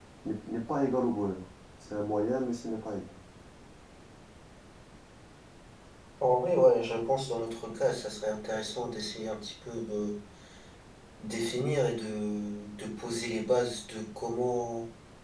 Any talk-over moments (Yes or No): No